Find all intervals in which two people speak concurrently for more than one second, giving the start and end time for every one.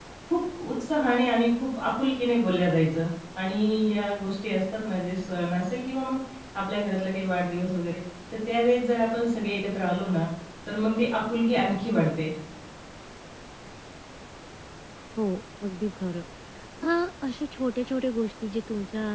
none

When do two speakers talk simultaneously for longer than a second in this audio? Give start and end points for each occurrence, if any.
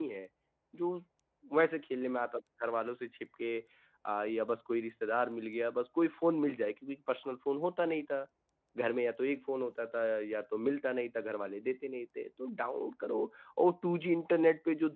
none

